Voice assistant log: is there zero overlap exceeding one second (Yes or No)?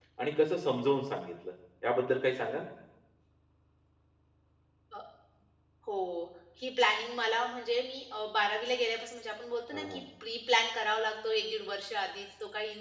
Yes